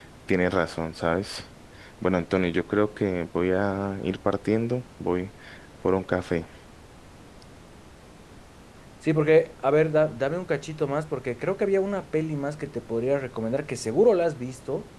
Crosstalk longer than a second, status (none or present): none